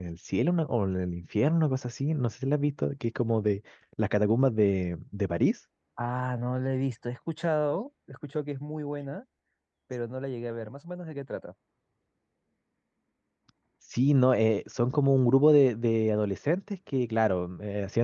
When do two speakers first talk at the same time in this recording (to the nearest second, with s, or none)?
none